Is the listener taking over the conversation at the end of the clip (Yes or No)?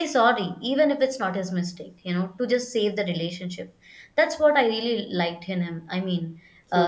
No